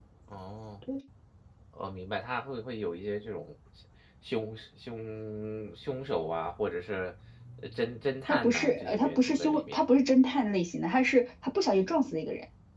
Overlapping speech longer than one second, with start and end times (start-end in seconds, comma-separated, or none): 8.3-9.8